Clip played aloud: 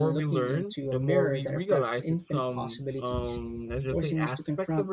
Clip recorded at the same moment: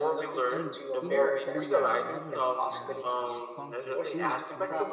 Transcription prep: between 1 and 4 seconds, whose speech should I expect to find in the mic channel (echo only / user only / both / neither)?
both